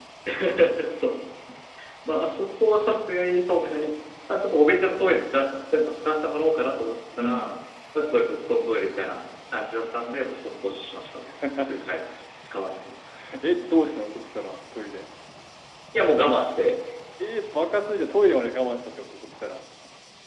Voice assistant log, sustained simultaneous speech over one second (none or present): none